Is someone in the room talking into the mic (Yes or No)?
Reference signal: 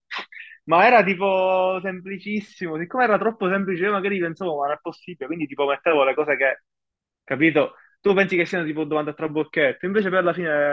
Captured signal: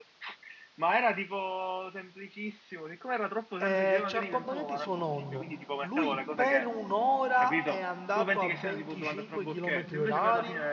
Yes